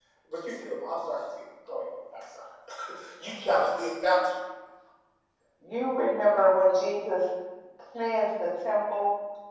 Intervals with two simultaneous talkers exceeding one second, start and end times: none

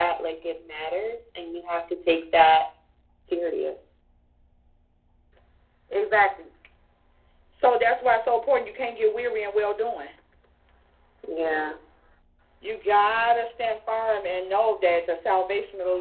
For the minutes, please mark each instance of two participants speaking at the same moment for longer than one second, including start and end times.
none

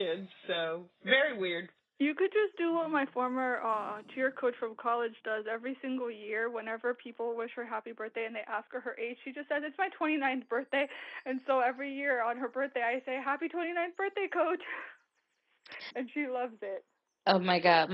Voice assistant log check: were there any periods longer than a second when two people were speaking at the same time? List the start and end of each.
none

